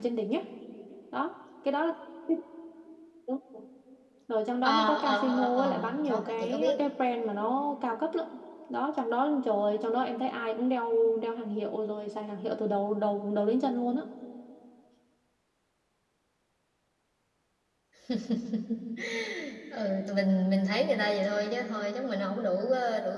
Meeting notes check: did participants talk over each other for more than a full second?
Yes, from 4.6 s

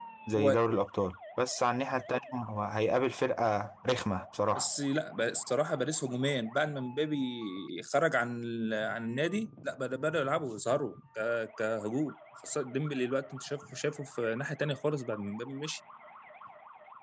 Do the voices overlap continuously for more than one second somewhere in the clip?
No

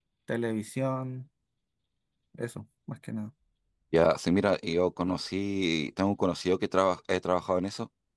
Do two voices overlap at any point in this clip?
No

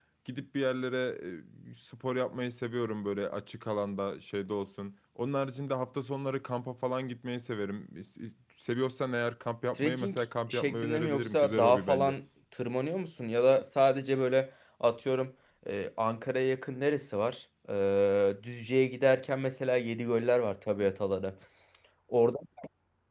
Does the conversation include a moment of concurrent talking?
Yes, from 9.7 s

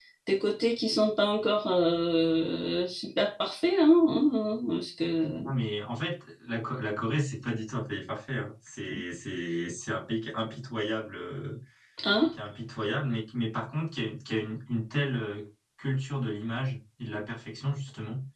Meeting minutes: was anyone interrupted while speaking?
No

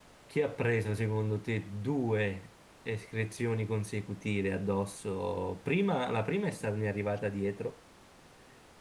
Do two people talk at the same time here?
No

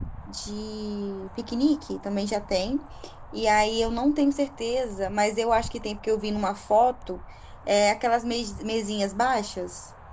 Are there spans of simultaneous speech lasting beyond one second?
No

